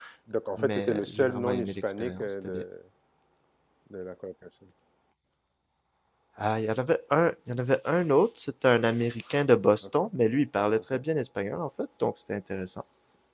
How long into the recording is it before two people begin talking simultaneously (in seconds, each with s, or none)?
0.6 s